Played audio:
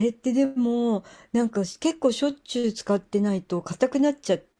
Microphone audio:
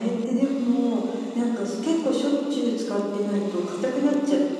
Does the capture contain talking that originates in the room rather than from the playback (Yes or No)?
No